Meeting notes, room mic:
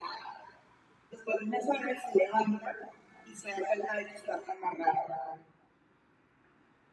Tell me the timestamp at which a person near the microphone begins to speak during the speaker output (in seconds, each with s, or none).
none